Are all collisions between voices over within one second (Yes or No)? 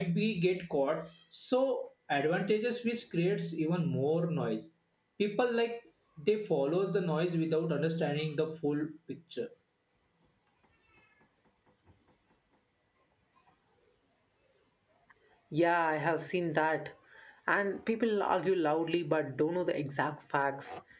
Yes